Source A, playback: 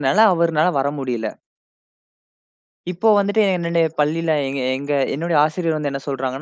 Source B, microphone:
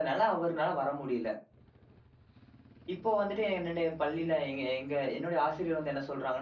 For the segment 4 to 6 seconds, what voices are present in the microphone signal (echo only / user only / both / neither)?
echo only